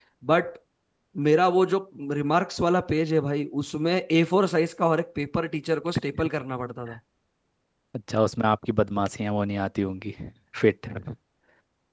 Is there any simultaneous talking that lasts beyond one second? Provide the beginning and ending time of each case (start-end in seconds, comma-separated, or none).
none